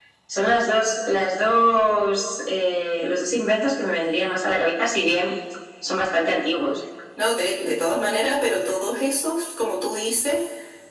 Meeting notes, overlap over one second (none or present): none